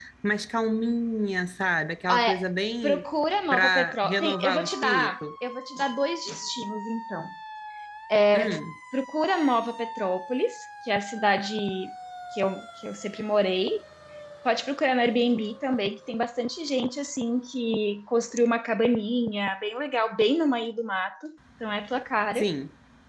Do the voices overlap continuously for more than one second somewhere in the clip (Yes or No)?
Yes